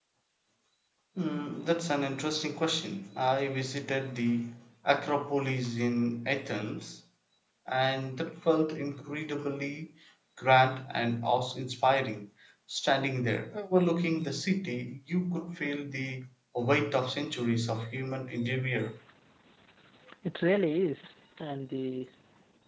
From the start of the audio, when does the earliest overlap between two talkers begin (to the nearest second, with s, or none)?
none